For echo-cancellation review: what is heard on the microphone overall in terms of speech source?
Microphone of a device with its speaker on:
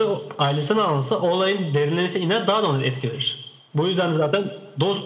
echo only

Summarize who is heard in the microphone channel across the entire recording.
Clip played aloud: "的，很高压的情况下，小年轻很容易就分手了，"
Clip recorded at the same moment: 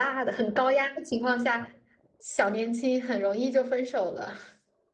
echo only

